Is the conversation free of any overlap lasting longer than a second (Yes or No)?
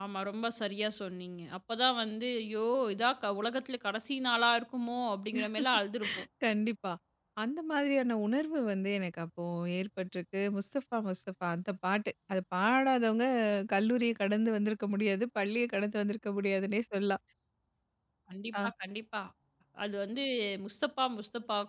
Yes